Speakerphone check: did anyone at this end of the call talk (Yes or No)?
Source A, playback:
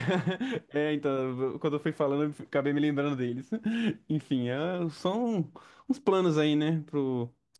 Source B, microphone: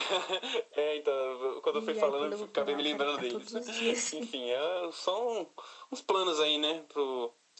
Yes